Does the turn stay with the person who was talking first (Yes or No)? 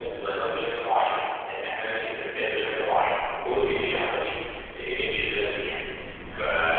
Yes